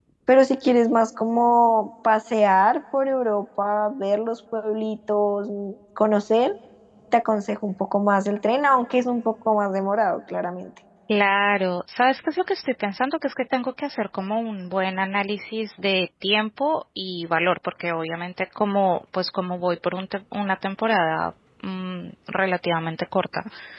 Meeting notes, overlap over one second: none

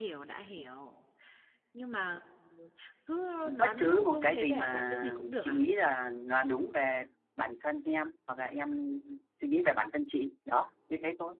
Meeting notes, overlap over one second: present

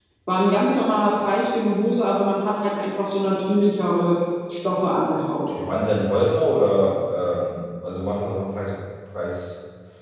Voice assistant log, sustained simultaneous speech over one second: none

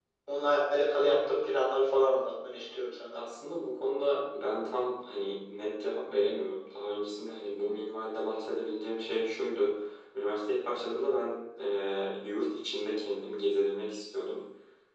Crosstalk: none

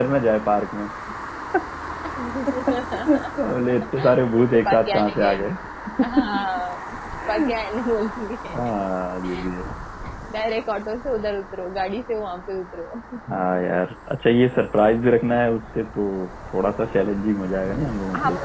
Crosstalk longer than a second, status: present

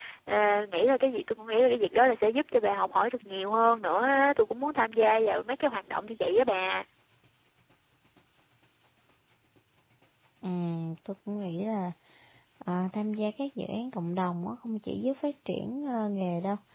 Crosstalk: none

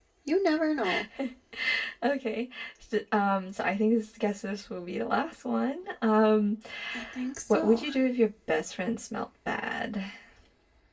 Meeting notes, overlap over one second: none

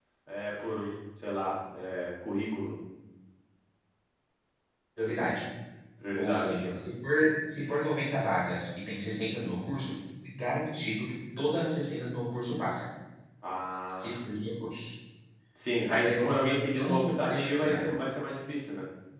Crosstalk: present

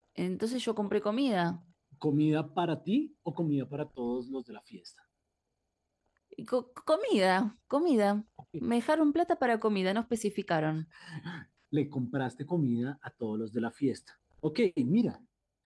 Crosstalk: none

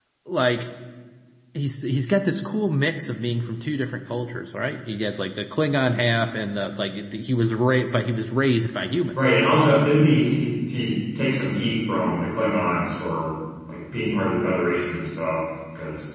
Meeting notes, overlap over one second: none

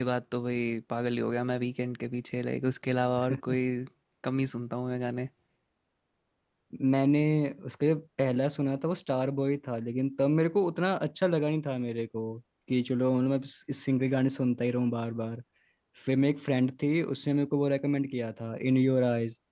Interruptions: none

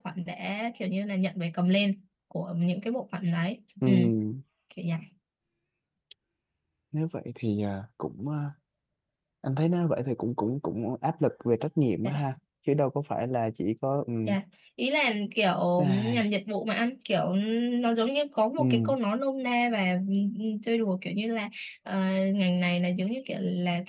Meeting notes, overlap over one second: none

